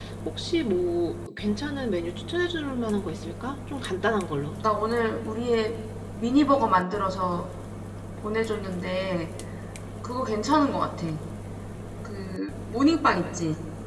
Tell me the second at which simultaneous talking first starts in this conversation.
none

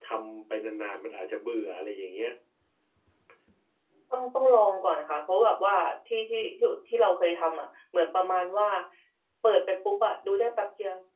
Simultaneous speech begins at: none

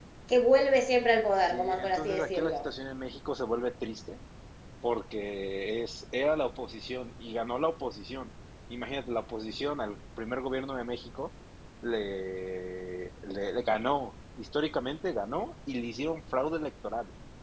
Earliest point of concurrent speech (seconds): 1 s

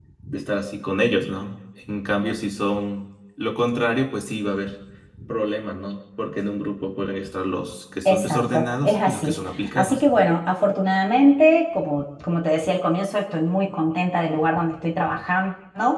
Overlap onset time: 8 s

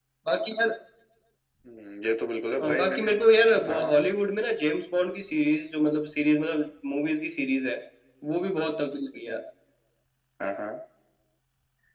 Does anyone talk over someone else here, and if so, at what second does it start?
3 s

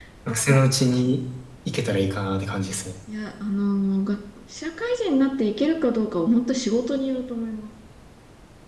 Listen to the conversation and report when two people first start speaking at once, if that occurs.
none

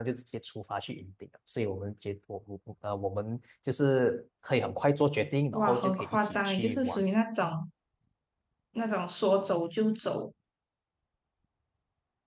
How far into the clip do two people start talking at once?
6 s

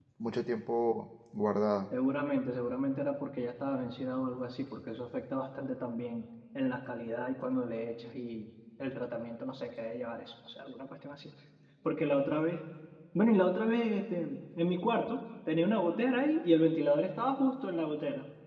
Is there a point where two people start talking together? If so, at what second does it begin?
none

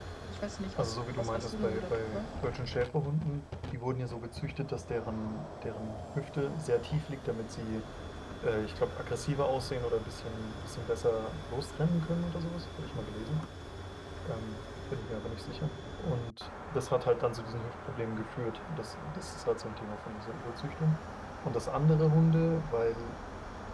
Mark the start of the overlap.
1 s

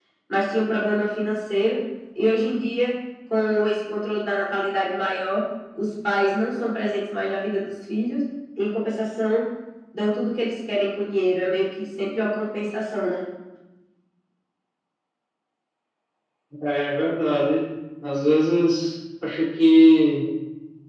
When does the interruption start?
none

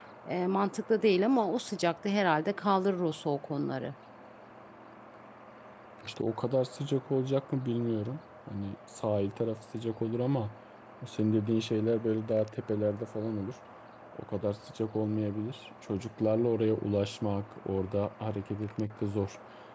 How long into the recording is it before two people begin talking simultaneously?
none

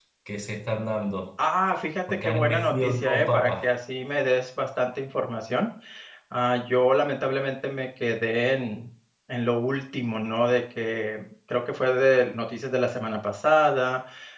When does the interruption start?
2 s

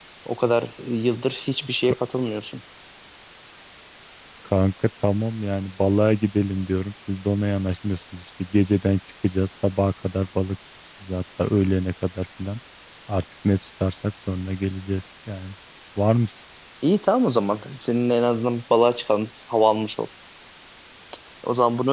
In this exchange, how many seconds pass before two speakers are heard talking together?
none

